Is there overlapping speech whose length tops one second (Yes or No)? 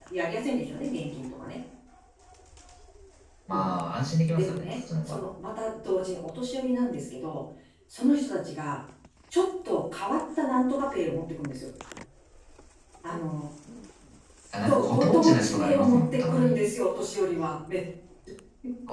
Yes